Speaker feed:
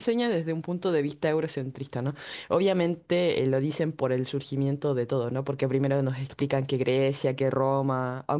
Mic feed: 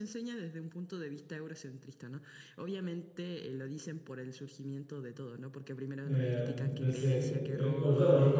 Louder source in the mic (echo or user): user